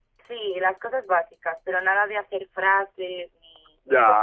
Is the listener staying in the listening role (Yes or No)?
No